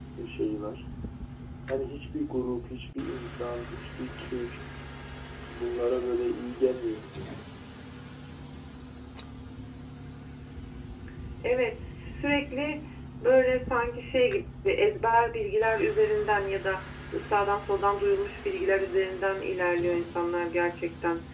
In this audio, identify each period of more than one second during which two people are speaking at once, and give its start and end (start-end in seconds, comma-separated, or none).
none